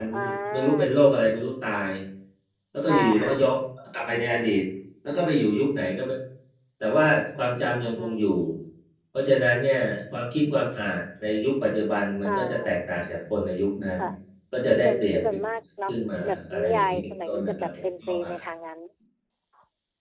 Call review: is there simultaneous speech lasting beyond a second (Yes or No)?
Yes